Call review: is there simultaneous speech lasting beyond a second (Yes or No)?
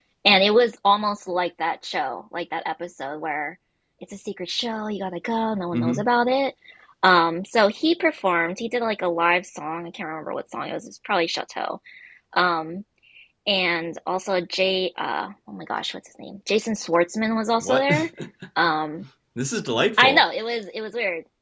No